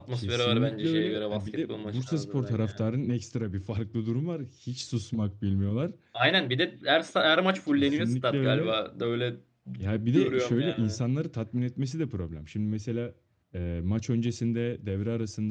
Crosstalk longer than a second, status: present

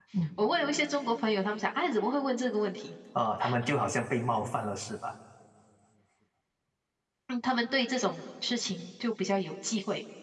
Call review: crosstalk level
none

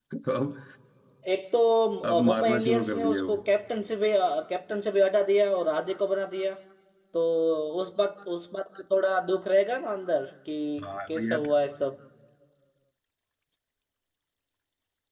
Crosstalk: present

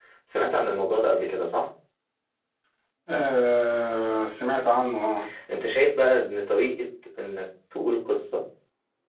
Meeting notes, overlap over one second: none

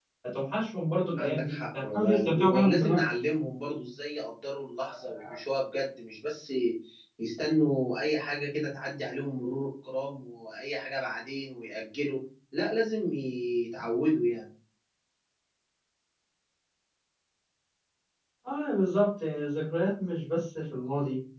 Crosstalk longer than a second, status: present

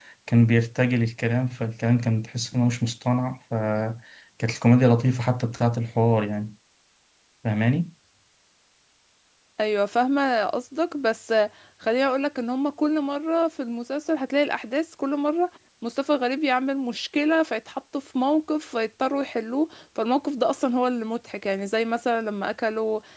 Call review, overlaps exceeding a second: none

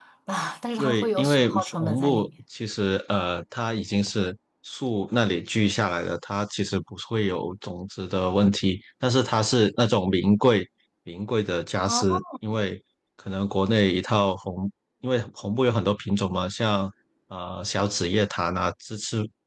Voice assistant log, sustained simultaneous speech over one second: present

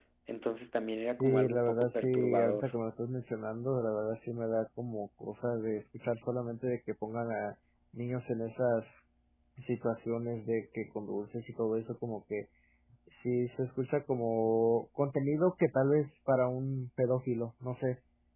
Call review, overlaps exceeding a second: present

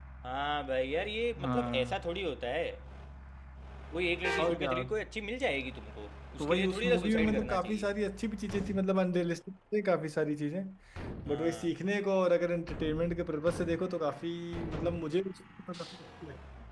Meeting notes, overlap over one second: present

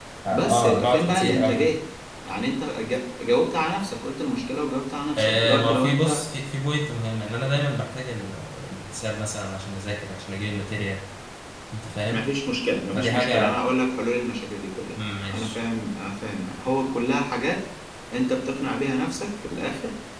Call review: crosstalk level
present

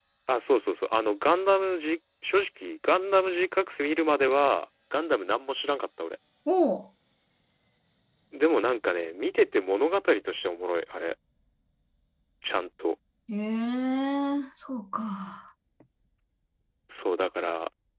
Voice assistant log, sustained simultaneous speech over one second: none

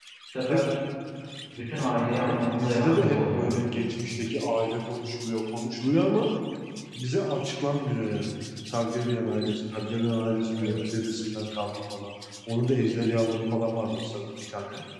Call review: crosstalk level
present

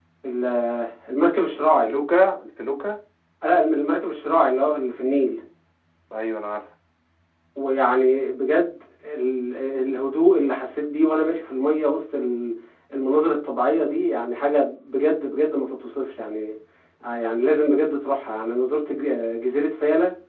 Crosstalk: none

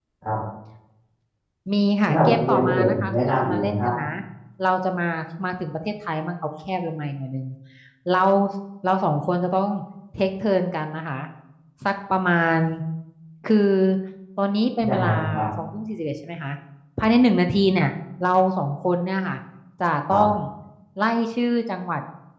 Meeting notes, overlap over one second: present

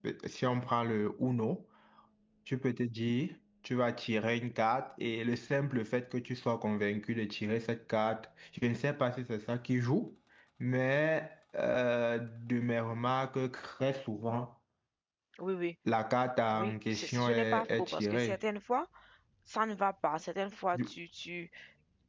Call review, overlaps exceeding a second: present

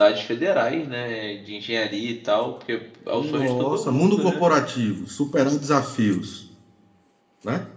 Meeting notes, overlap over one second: present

